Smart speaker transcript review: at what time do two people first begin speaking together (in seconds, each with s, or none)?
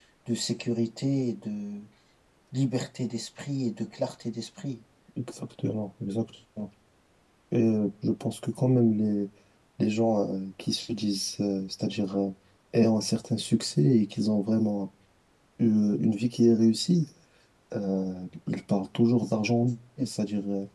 none